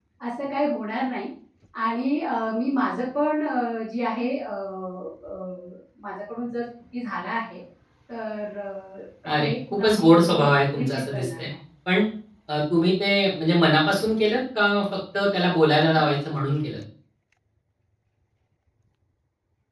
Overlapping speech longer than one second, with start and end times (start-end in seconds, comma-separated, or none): 9.2-11.4